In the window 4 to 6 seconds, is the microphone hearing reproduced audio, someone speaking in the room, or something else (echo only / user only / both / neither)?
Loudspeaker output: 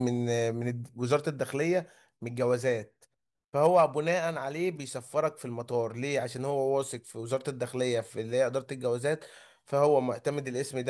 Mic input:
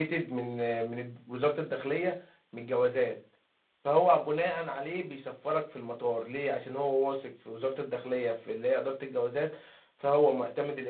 echo only